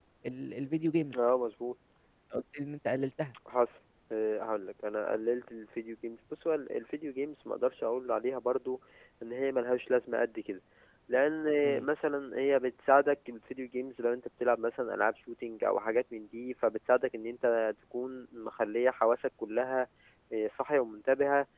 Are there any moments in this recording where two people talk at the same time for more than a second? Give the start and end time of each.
none

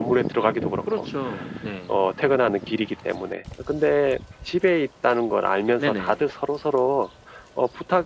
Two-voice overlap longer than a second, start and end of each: none

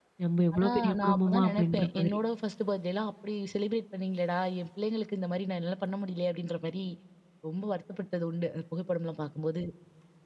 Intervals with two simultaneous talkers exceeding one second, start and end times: 0.5-2.2

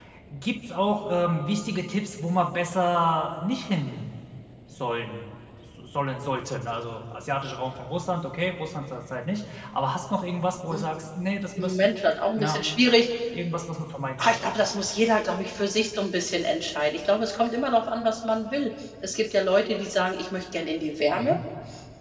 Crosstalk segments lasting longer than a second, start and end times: none

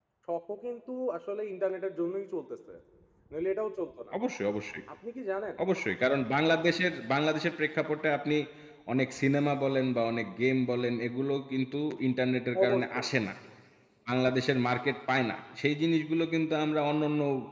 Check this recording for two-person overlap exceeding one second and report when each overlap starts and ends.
none

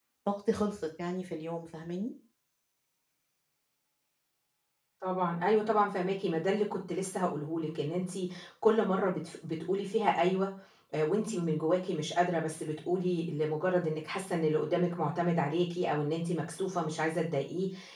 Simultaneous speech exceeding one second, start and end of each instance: none

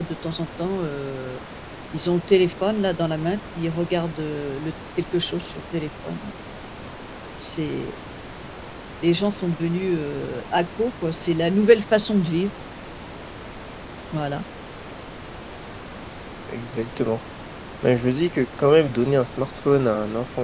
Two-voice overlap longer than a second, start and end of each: none

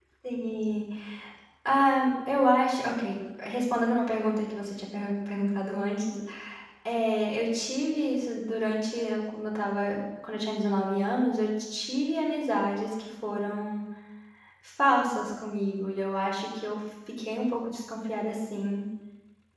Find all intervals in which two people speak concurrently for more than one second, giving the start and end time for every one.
none

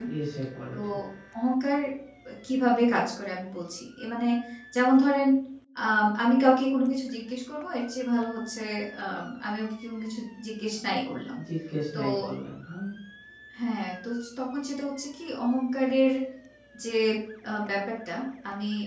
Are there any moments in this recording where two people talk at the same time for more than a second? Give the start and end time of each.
none

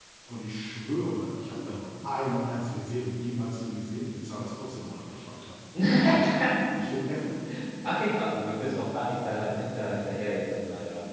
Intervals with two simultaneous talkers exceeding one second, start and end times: none

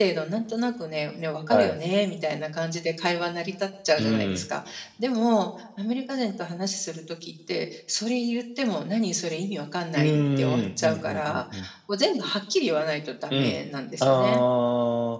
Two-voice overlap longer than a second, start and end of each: 9.9-11.4

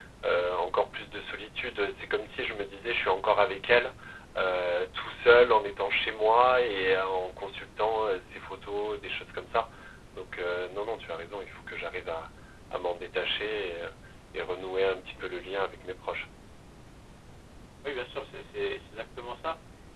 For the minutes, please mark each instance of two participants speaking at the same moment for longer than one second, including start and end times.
none

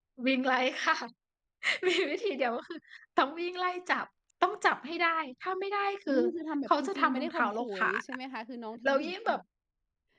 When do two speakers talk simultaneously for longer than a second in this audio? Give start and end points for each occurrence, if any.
6.7-8.0

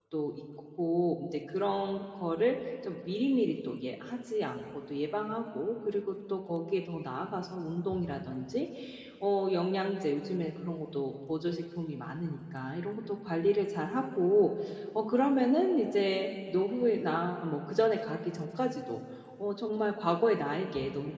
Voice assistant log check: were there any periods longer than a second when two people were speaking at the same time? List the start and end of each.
none

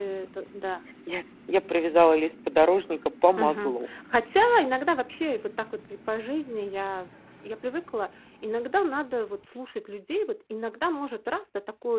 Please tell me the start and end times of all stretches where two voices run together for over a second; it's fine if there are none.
none

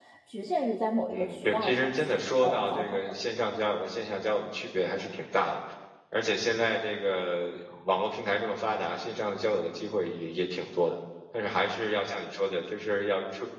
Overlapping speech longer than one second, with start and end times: 1.1-3.0

